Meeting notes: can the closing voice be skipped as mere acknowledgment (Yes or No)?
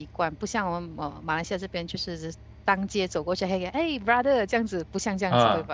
No